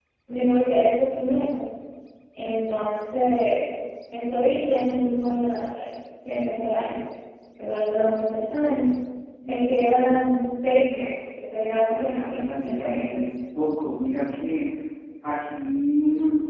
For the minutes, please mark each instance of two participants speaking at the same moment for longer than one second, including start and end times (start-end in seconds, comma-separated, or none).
11.6-13.1